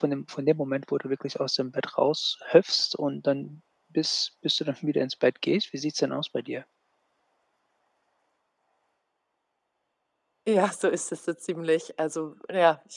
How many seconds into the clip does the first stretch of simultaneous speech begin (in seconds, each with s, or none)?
none